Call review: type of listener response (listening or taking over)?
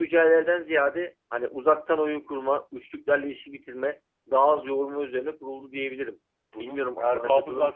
taking over